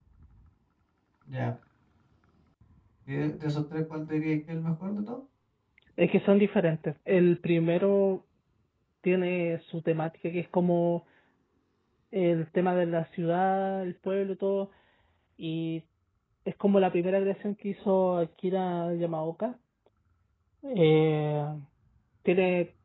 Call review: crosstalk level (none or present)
none